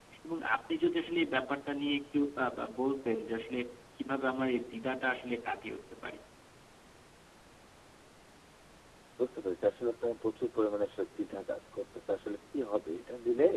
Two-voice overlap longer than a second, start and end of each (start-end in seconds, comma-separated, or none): none